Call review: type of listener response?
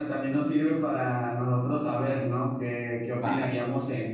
listening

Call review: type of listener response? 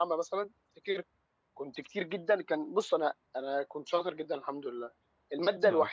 listening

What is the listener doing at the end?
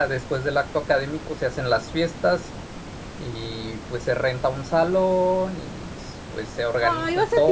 taking over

